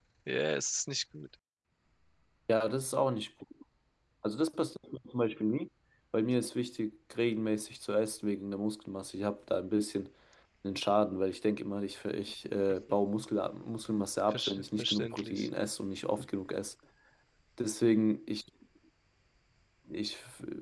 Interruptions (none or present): present